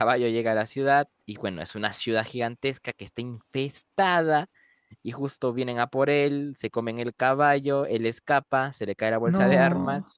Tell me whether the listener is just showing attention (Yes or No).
Yes